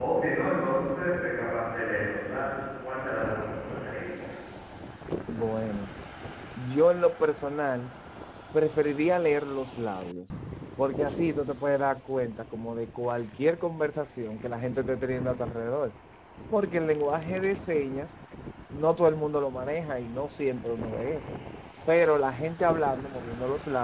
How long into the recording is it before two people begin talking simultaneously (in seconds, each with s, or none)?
none